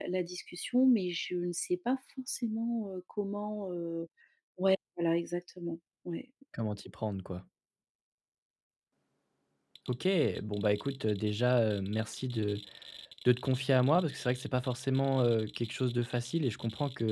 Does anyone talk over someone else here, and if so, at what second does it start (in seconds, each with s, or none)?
none